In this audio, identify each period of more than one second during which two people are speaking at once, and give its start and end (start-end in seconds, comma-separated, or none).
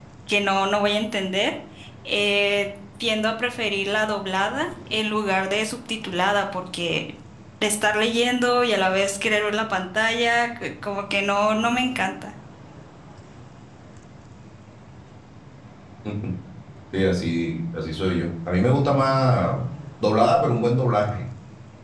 none